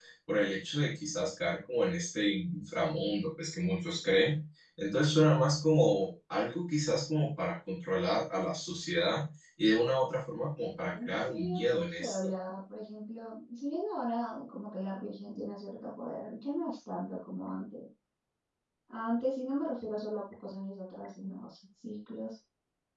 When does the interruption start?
11 s

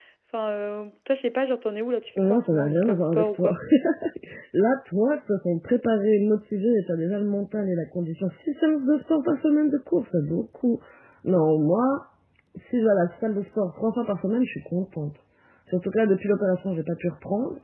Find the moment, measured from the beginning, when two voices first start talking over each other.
2 s

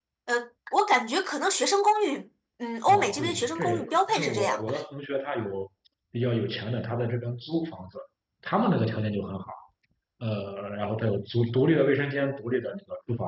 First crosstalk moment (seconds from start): 3 s

